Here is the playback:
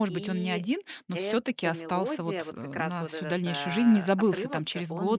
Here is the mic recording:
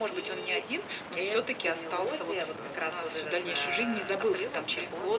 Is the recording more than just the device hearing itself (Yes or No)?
No